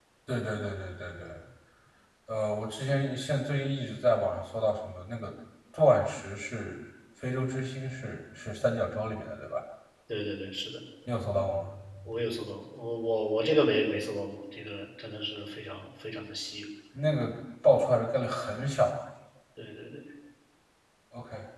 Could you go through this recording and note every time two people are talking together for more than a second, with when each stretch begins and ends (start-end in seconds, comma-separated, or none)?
none